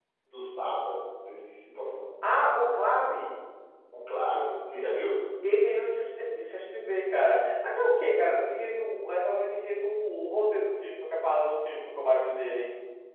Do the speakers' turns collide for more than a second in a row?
No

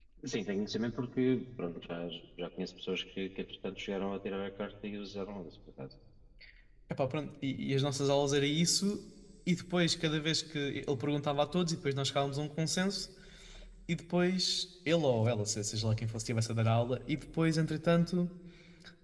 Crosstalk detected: No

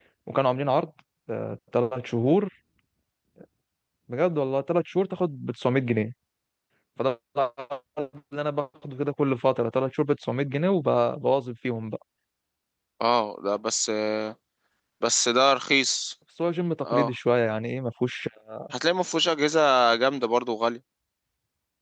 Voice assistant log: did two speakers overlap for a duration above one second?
No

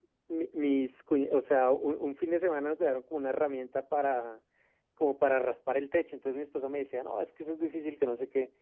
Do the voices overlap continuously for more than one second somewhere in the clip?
No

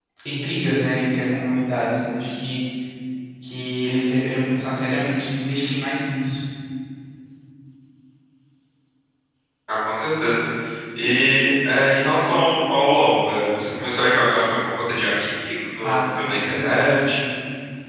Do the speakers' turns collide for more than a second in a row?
Yes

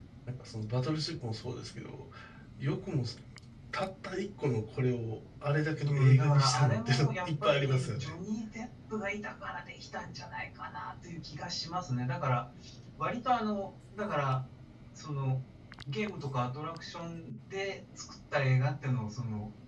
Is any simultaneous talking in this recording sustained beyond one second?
Yes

